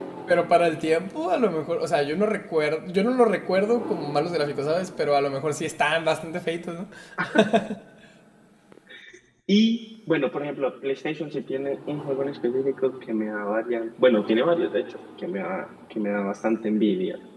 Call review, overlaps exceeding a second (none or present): none